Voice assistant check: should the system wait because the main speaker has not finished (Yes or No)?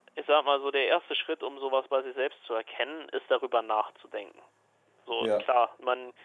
Yes